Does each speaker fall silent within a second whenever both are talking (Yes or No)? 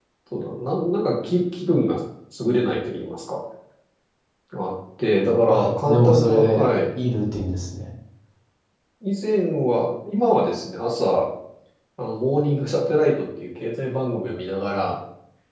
No